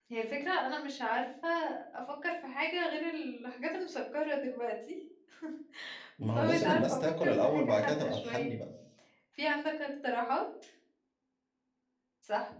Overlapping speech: Yes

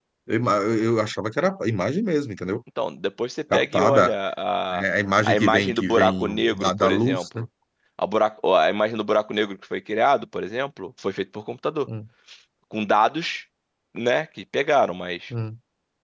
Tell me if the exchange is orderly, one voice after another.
No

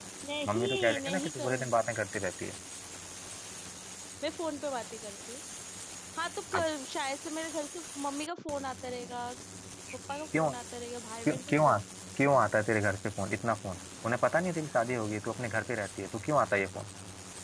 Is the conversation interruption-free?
No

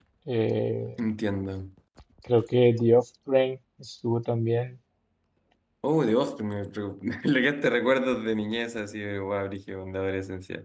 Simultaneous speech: No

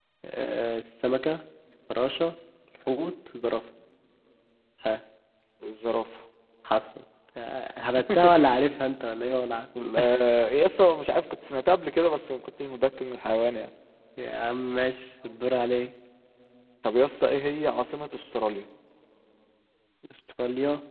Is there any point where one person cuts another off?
No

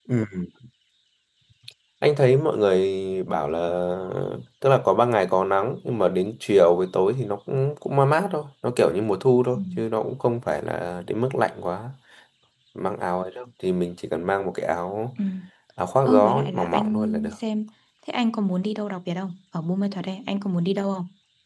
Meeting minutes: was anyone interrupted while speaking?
Yes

